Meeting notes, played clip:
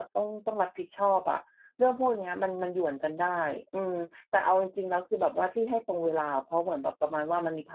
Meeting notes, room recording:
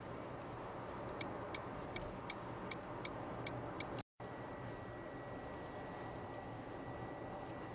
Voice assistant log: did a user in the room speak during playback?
No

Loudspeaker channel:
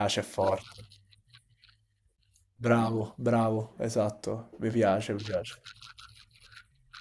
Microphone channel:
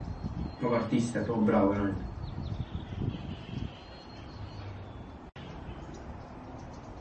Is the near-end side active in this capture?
Yes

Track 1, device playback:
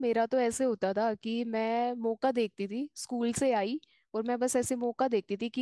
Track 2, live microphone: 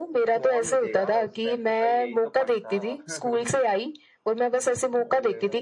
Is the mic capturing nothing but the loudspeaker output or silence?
No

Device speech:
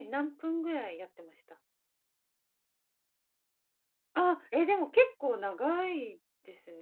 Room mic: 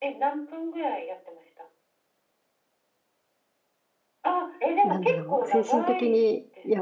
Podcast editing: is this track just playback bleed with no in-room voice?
No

